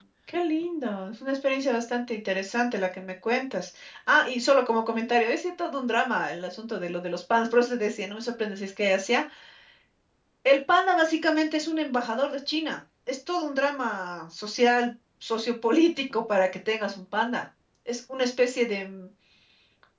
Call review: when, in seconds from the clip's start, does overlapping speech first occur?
none

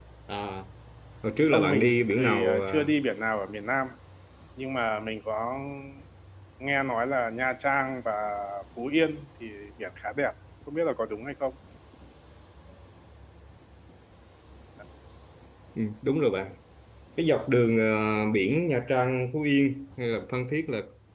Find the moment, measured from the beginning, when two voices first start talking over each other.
1.5 s

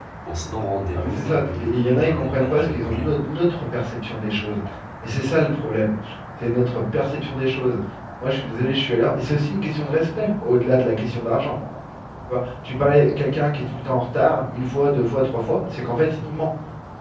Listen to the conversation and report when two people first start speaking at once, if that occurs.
0.9 s

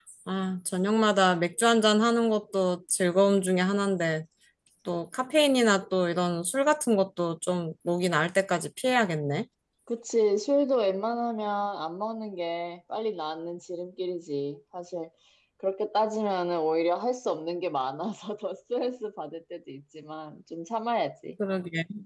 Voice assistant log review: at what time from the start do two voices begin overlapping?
none

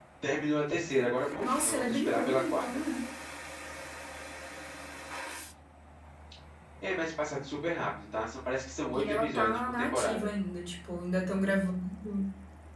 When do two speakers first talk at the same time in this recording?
1.4 s

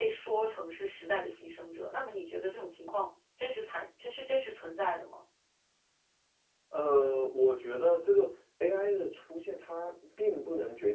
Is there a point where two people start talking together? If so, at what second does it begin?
none

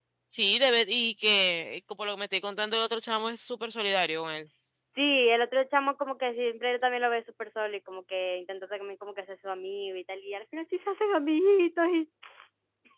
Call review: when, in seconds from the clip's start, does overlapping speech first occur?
none

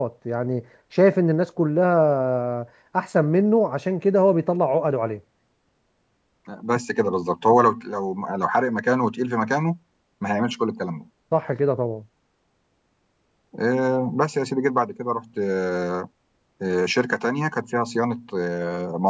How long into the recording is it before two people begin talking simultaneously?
none

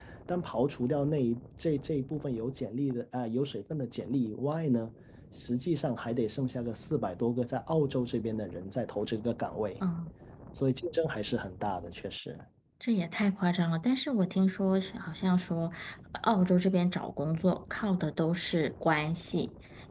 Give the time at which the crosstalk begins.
none

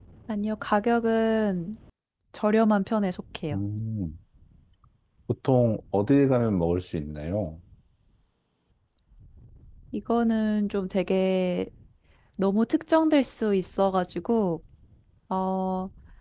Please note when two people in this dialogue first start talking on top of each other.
none

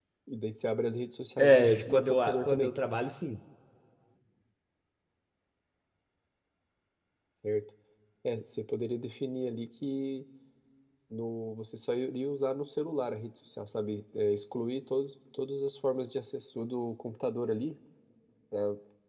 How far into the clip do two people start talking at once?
1.4 s

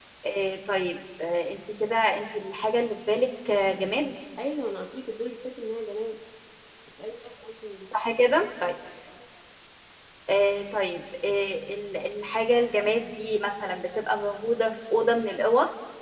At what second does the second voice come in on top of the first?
none

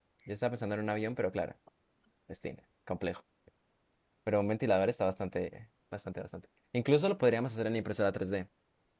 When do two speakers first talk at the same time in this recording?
none

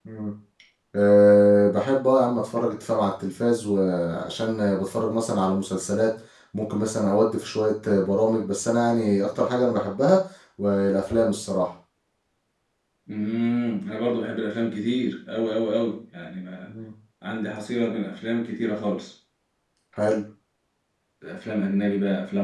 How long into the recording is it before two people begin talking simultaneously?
none

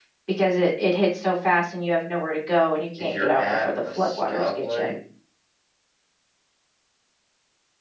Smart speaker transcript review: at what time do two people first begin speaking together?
3.0 s

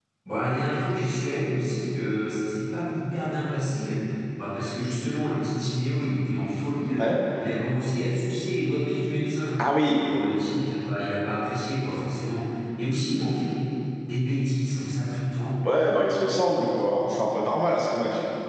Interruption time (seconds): none

